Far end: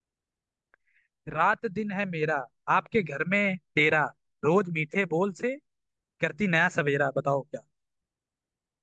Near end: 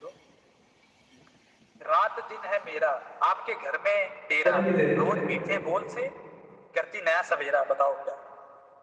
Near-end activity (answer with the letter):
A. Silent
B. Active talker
B